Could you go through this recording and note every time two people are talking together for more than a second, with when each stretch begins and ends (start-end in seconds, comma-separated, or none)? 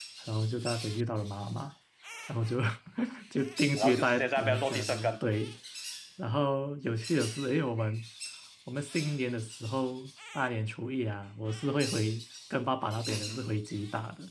3.8-5.2